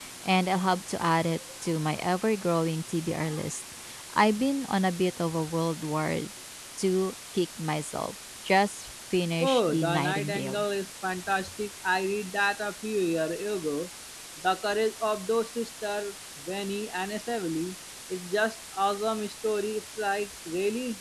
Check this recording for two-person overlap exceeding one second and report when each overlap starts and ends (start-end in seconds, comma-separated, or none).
9.4-10.6